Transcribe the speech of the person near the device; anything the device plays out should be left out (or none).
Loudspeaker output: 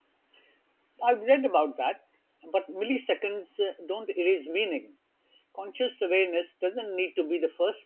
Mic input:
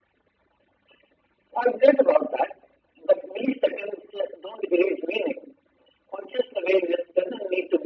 none